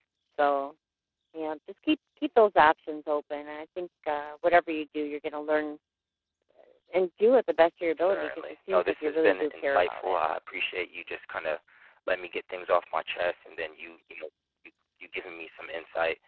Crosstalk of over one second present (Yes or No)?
Yes